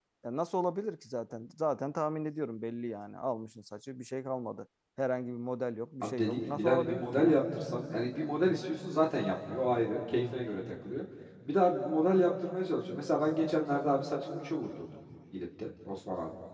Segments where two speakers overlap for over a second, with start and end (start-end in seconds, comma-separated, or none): 6.0-7.4